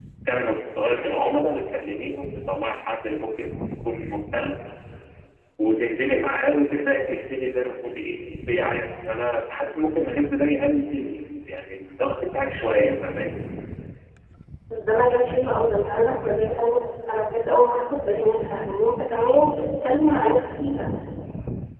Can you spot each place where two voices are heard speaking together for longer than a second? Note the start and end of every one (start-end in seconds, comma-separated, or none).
none